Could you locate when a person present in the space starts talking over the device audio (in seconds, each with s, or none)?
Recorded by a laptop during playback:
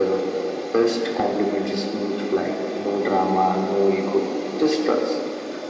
none